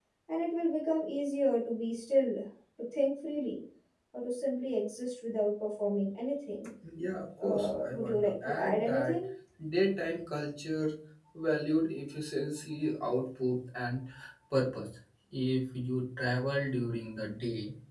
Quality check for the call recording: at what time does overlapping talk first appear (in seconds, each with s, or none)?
7.4 s